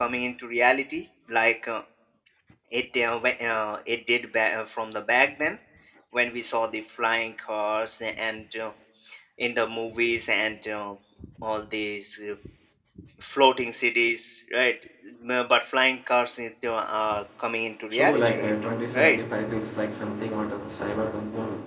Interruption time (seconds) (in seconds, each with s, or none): 17.9 s